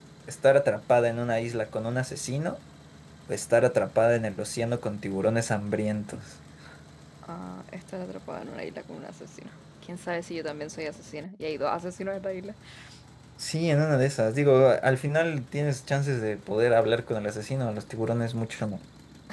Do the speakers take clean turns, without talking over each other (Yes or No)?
Yes